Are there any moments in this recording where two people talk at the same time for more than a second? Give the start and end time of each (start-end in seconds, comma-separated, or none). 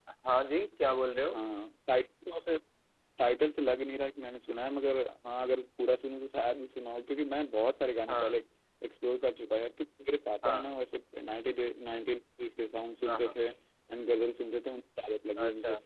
none